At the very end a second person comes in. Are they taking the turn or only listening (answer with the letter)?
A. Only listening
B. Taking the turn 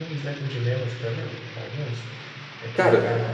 A